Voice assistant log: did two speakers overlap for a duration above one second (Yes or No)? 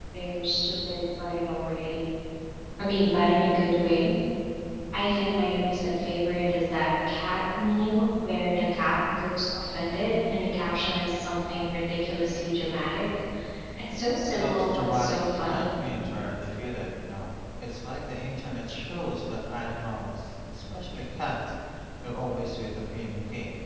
Yes